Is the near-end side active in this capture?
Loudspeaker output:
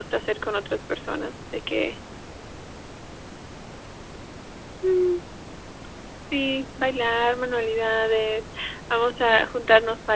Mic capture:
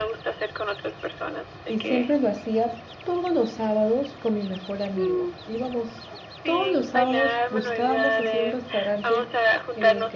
Yes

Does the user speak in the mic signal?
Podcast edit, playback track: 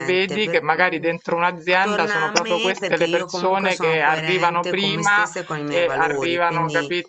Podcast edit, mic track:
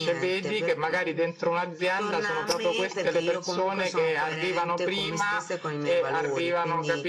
No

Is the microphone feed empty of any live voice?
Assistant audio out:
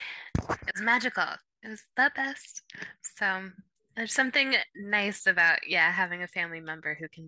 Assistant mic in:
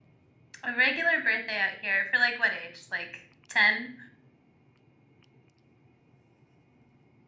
No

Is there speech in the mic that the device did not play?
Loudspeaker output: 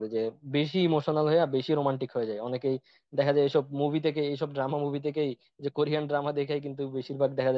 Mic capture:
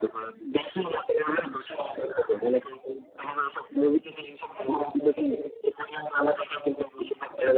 No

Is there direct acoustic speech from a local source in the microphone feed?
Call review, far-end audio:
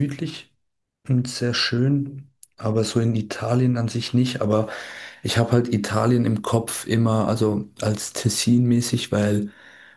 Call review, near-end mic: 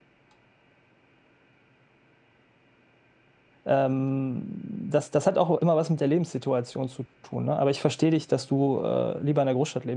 Yes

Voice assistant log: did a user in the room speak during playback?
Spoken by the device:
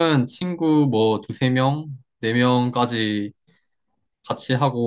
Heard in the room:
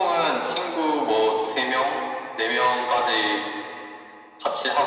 No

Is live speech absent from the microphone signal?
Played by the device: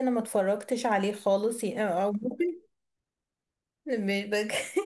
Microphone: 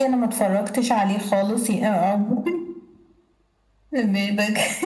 Yes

